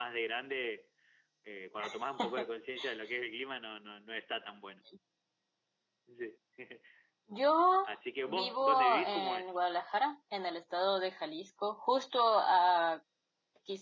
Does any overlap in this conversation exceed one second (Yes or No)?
Yes